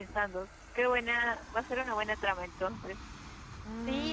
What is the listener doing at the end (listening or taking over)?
taking over